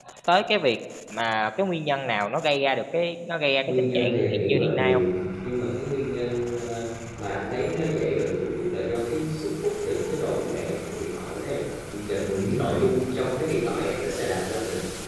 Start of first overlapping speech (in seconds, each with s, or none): 3.7 s